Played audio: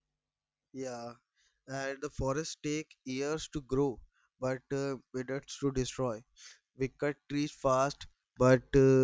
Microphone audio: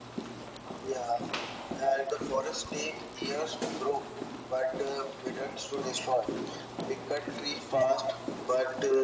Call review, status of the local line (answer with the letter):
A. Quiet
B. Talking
A